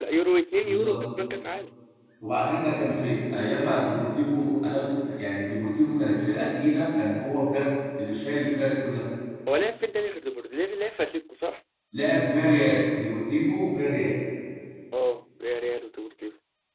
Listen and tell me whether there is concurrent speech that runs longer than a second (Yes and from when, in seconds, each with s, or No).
No